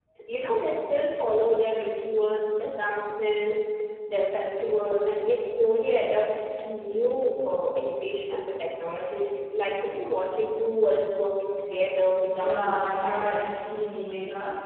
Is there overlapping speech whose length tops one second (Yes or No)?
Yes